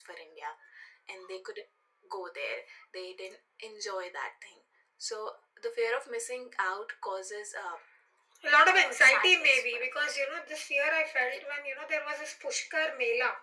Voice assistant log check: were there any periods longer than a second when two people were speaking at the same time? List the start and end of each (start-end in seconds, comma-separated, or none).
8.6-10.3